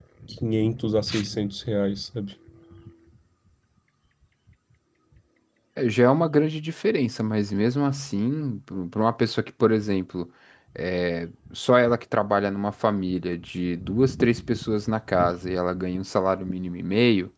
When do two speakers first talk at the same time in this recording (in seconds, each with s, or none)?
none